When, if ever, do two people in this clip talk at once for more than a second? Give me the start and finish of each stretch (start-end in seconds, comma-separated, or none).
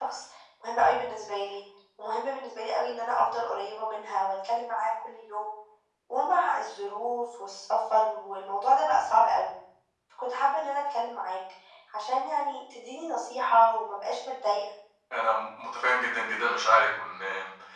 none